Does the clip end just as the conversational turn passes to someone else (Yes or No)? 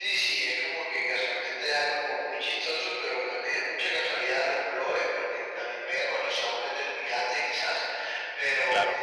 No